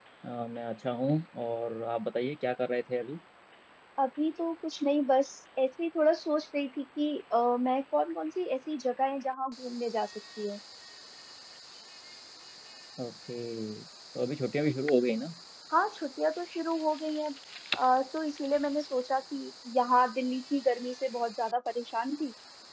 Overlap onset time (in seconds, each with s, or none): none